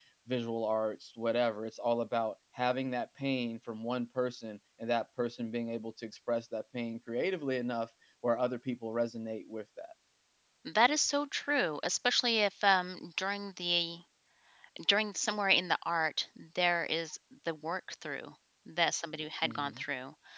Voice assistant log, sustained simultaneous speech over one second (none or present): none